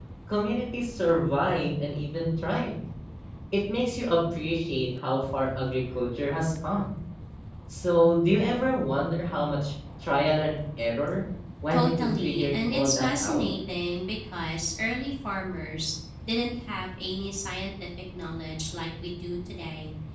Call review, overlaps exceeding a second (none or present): present